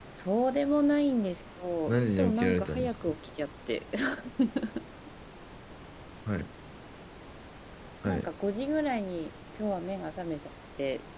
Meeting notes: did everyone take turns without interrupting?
No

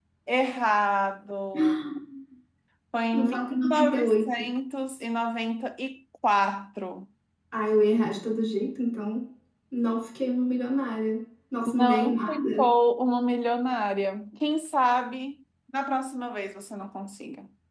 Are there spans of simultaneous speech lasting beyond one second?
Yes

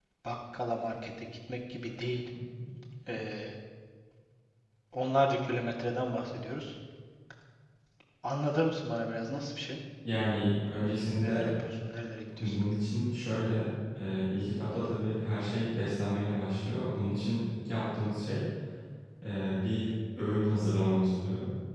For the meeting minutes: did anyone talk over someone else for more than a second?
No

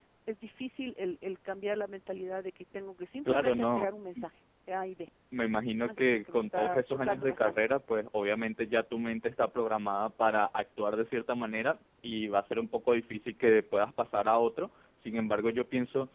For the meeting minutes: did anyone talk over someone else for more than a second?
Yes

